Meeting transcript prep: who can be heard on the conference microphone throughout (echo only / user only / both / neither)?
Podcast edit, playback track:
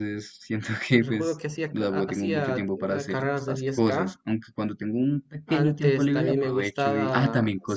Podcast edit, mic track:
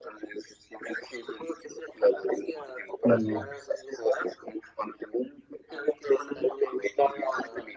both